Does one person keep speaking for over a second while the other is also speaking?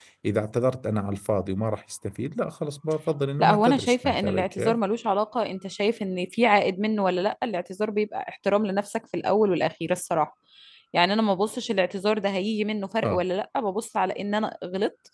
Yes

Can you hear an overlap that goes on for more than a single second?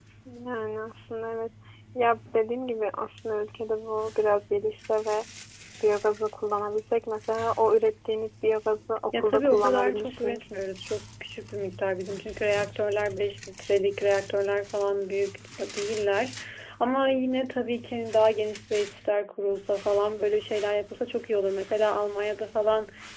Yes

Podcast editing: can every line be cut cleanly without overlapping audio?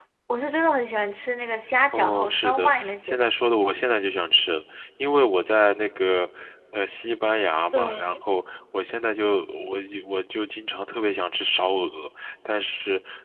No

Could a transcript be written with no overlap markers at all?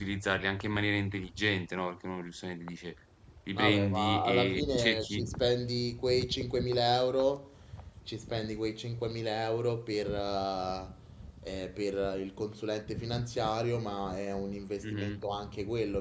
No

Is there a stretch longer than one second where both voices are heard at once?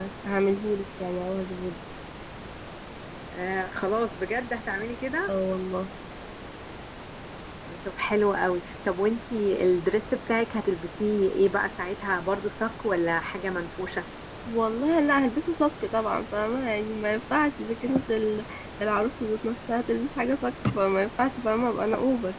No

